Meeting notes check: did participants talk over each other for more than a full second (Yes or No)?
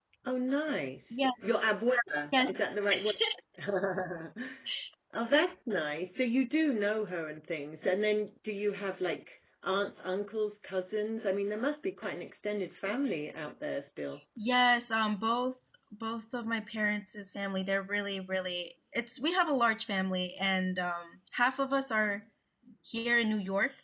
No